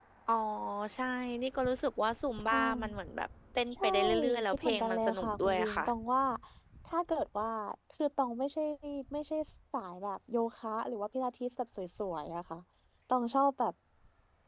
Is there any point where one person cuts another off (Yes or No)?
Yes